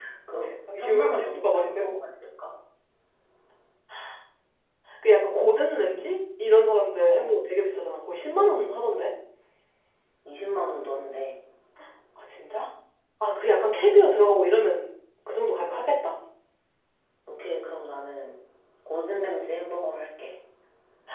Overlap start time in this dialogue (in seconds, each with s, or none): 0.7 s